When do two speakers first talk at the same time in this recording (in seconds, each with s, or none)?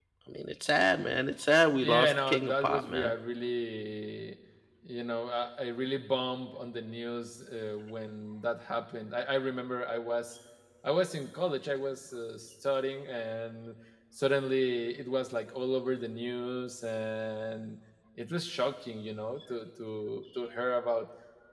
1.8 s